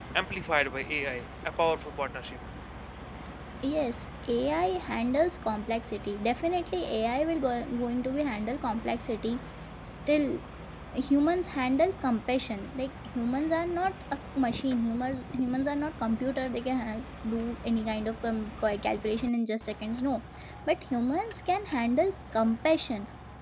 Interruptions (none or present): none